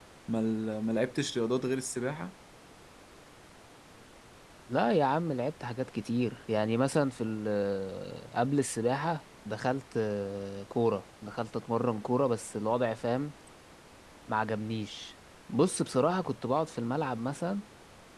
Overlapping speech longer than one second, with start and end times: none

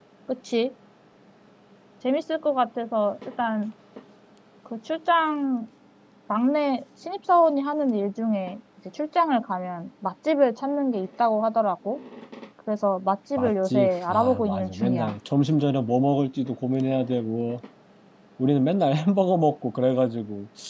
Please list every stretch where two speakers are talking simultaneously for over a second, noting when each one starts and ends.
13.4-15.2

